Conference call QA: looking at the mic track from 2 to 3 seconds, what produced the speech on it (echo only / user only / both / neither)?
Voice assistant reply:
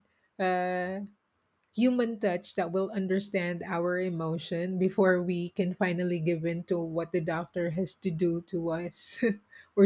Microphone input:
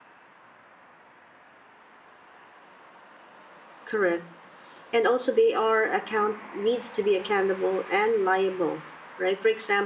neither